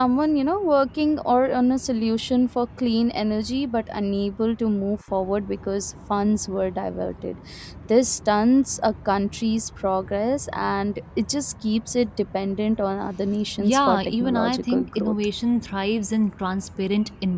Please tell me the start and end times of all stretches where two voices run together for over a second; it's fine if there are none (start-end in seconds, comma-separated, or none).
13.6-15.2